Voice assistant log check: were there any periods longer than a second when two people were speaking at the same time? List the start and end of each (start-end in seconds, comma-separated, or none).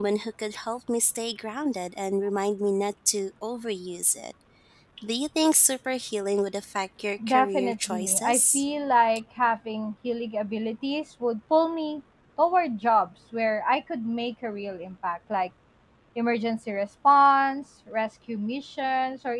7.3-8.6